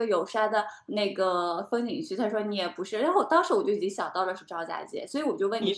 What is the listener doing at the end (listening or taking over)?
taking over